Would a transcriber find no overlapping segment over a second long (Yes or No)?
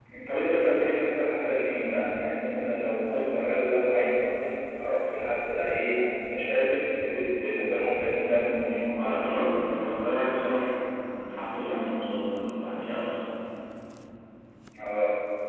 Yes